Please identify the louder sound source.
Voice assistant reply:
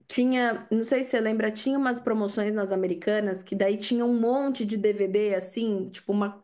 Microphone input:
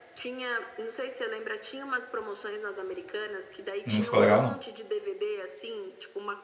user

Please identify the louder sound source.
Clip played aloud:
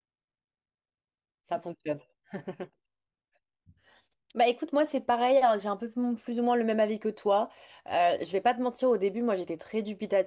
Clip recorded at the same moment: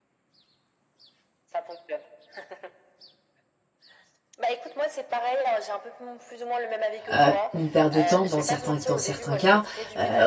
user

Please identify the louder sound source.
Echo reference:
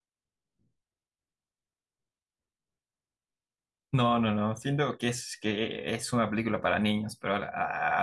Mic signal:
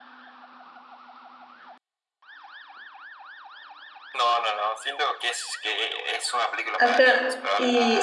user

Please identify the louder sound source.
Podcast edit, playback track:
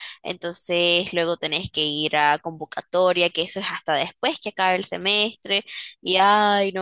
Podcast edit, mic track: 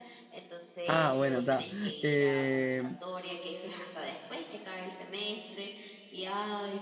user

